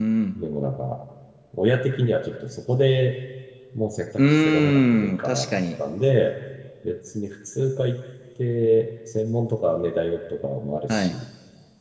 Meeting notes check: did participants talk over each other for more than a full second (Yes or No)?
Yes